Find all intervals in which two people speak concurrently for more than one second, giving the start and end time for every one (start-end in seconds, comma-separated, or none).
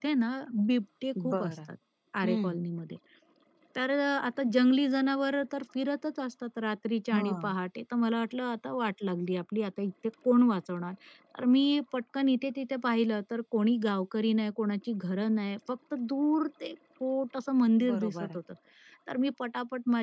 none